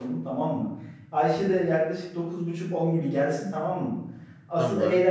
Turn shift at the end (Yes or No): No